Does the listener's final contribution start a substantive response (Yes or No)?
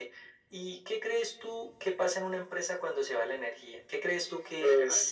Yes